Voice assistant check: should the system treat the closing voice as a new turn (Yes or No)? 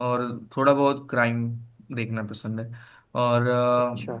No